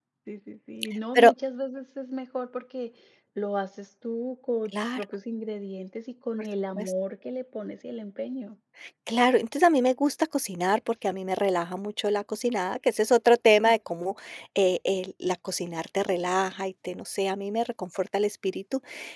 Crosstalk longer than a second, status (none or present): none